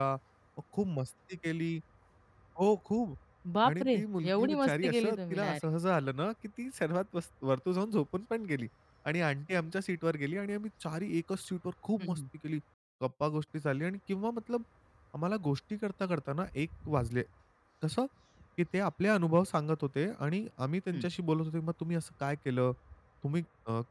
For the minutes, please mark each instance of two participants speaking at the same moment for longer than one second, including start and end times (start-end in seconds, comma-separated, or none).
4.3-5.6